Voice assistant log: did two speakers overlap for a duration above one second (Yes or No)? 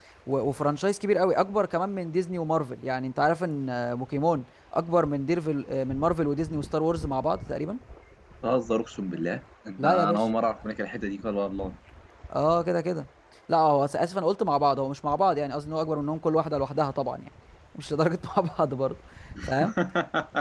No